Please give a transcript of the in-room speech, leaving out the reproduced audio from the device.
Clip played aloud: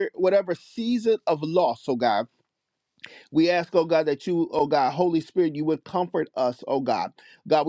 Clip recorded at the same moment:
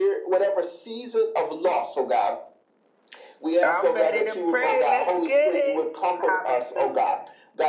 I'm ready to pray. Let's get it. Hallelujah.

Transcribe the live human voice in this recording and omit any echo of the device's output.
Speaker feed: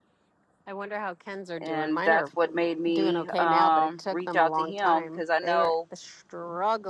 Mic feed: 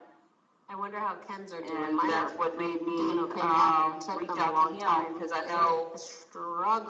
none

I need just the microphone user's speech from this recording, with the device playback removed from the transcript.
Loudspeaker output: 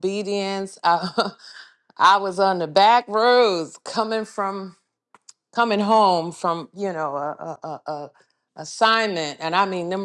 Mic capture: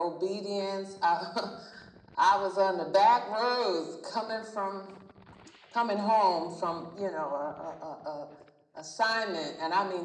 none

